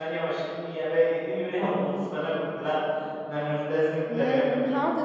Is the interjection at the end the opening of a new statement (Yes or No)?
Yes